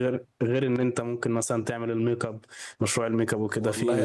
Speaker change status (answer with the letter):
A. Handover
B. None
A